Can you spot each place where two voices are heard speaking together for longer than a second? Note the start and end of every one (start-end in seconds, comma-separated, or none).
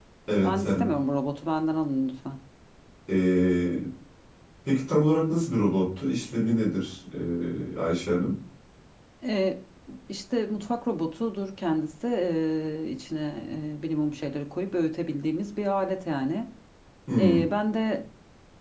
none